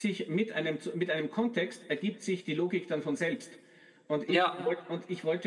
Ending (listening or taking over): listening